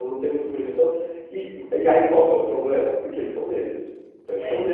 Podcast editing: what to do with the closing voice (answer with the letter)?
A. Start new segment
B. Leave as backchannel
B